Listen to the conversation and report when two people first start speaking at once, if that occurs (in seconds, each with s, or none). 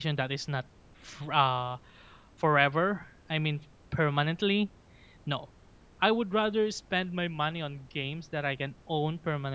none